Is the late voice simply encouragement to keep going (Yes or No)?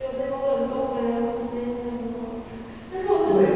Yes